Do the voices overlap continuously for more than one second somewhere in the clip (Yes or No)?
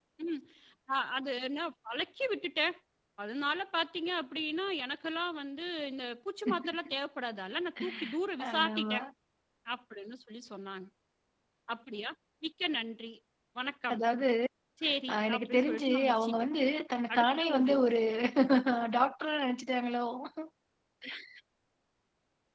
Yes